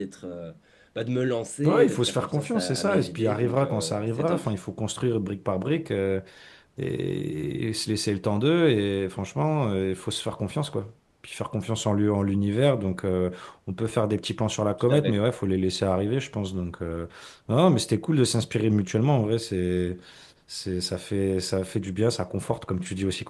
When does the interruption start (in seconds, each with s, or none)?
1.6 s